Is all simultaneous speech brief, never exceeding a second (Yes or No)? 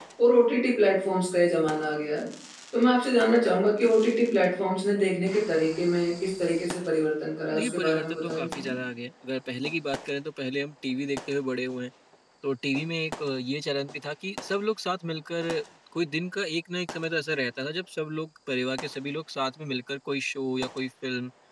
No